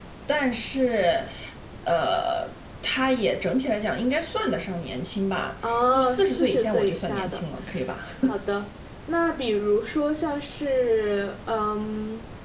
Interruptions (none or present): present